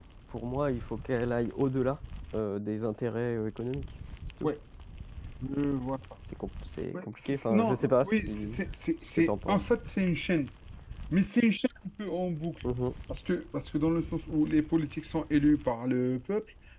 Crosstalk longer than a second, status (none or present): present